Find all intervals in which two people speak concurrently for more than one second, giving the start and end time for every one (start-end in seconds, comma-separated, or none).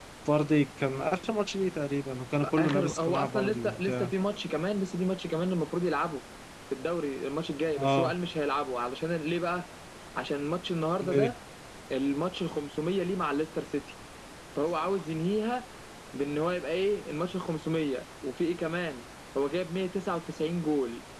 2.6-4.1